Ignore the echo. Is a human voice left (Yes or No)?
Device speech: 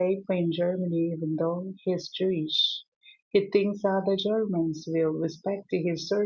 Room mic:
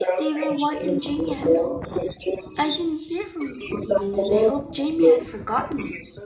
Yes